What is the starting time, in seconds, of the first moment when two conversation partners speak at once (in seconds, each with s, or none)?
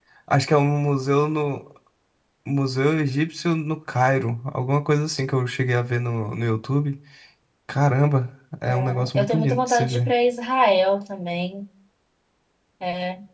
8.7 s